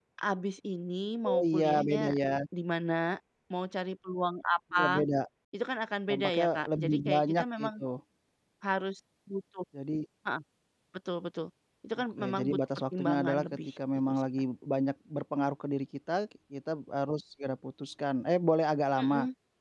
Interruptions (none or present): present